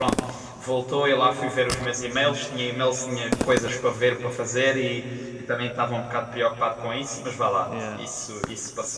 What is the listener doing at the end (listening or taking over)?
listening